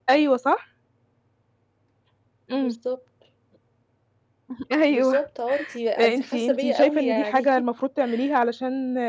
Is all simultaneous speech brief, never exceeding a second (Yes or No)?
No